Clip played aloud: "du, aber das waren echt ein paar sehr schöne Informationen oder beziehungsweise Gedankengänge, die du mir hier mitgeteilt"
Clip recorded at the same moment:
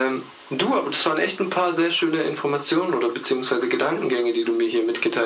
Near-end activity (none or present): none